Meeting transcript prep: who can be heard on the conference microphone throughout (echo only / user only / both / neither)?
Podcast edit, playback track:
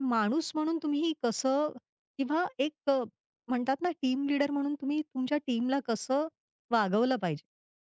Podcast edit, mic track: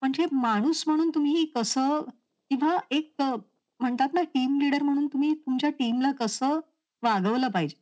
echo only